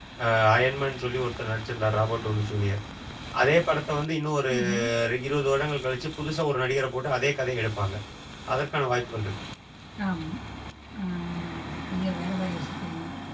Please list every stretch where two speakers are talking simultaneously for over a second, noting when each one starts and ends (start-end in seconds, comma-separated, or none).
none